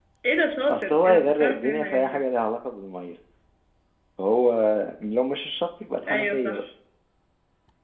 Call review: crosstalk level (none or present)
present